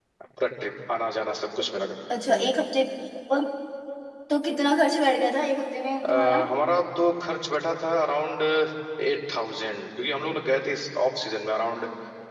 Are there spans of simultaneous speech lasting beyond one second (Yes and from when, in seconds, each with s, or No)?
No